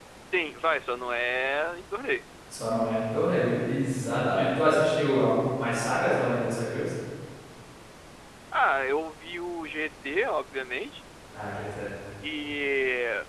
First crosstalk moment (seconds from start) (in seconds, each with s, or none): none